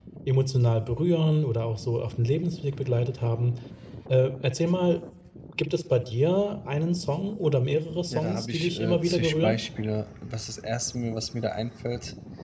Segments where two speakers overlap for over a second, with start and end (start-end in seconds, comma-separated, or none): 8.1-9.6